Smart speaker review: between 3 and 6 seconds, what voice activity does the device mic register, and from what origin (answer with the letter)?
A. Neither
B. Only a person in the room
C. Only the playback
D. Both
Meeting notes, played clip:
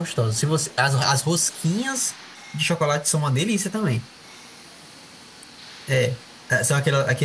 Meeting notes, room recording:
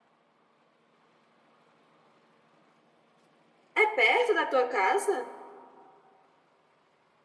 B